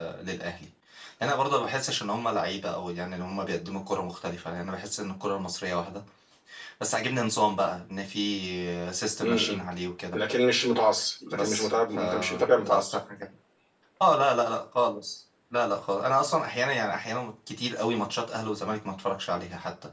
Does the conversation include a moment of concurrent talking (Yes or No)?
Yes